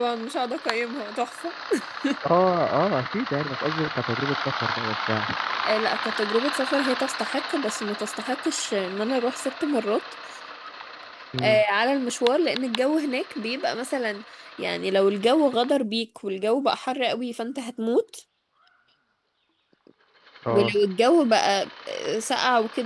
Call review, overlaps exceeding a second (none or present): none